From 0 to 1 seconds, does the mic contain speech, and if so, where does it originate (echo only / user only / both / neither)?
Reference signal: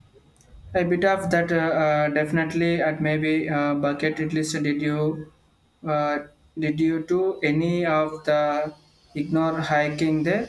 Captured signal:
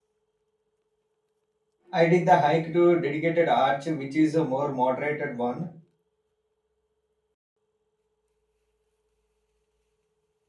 neither